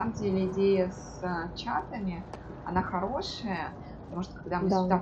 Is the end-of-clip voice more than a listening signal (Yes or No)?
No